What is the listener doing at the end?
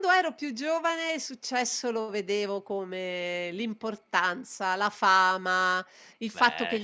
listening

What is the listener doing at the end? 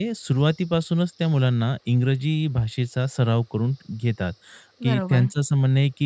listening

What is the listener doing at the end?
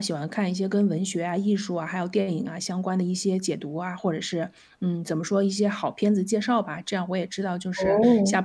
listening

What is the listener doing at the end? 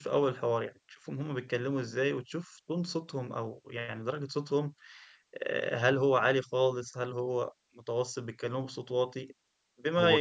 listening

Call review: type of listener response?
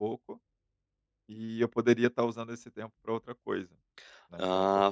taking over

